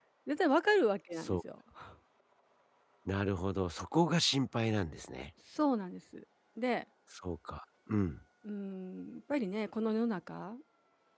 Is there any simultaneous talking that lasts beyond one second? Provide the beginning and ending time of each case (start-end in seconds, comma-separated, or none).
none